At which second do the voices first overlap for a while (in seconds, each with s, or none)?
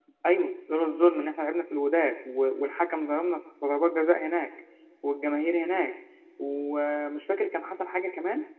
none